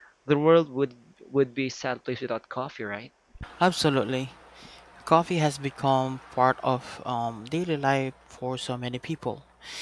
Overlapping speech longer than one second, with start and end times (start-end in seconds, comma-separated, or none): none